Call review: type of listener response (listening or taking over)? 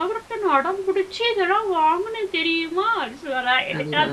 listening